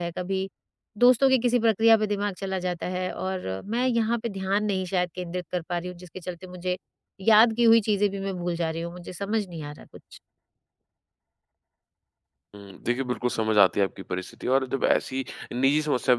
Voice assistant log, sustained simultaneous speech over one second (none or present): none